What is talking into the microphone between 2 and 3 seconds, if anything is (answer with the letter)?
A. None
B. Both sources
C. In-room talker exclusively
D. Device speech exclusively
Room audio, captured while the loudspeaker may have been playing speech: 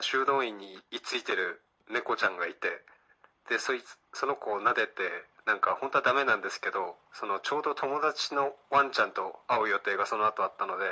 D